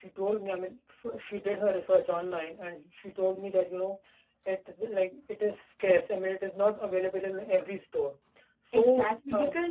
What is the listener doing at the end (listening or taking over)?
taking over